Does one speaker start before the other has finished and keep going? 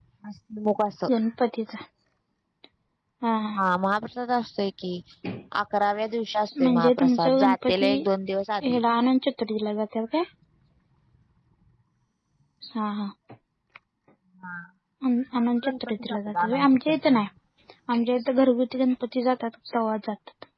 Yes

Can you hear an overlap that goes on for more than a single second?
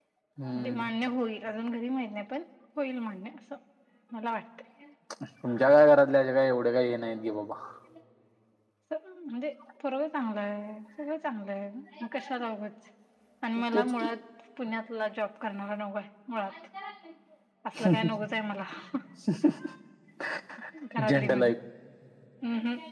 No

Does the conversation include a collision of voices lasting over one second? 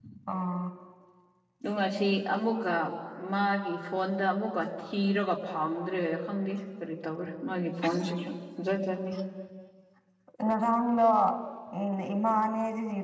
No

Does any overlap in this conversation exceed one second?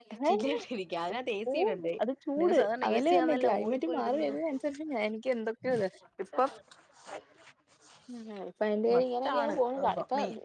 Yes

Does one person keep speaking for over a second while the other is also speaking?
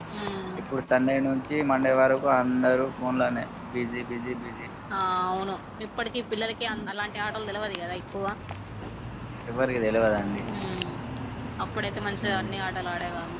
No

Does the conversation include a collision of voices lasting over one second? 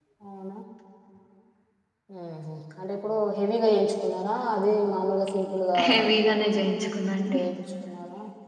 No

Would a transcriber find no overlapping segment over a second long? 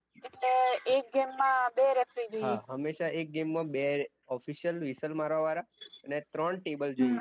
Yes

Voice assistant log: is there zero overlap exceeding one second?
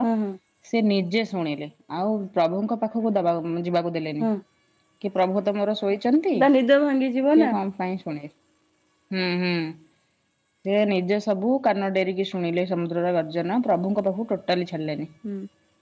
Yes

